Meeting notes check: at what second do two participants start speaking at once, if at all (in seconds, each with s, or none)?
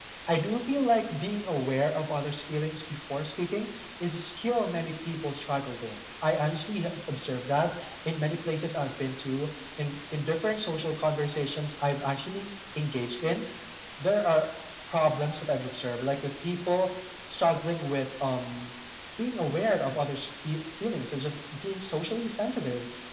none